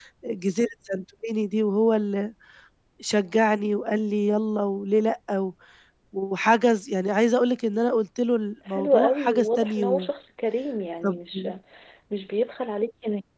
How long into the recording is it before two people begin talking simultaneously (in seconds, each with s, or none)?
8.7 s